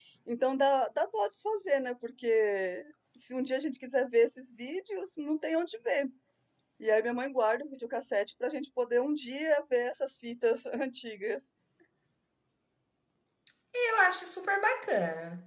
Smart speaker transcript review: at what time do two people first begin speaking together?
none

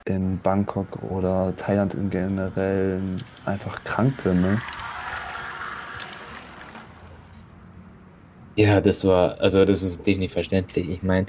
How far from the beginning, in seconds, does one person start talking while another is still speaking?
none

